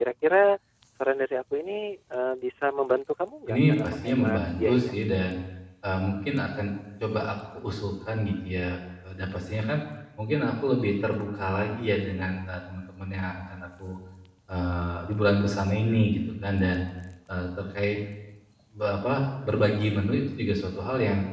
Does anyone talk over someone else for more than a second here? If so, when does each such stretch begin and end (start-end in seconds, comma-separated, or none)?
3.5-4.9